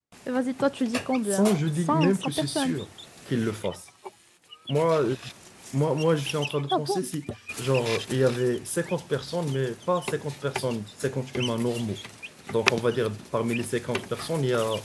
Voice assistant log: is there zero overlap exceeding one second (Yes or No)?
No